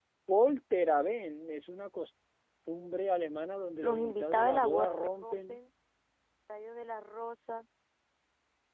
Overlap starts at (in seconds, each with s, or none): 3.8 s